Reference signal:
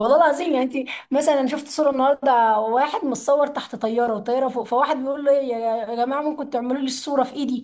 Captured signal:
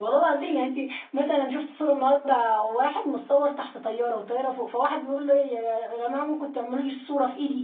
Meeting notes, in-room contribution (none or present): none